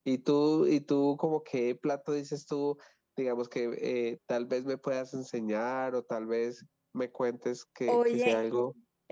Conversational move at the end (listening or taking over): taking over